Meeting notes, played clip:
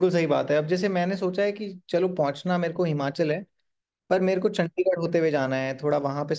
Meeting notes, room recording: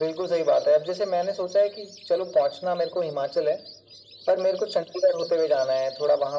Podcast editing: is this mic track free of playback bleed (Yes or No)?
No